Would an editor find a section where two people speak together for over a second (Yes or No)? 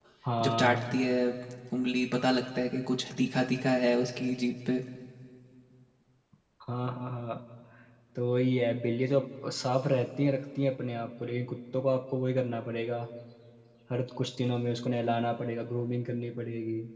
No